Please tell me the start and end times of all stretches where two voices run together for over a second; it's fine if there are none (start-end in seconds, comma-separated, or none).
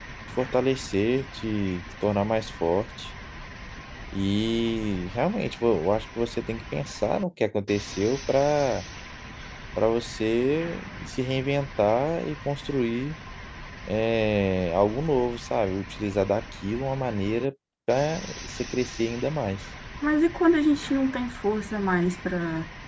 none